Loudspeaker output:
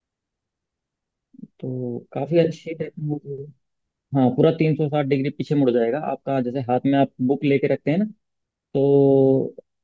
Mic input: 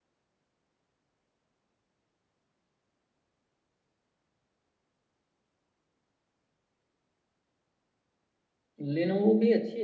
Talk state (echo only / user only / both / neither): user only